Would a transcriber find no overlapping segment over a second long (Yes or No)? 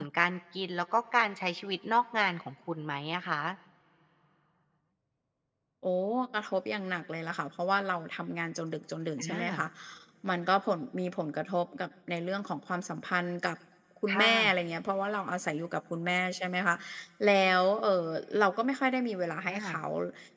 Yes